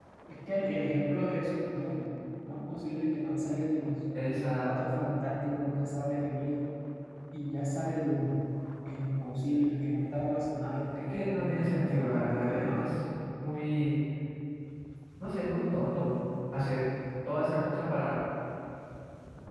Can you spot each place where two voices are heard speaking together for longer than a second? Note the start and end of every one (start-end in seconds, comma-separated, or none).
11.0-12.9